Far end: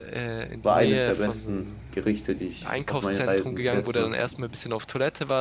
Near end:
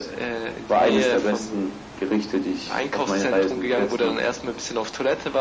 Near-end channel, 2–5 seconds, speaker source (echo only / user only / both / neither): echo only